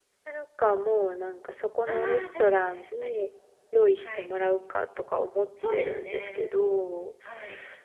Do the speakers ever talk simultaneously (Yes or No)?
Yes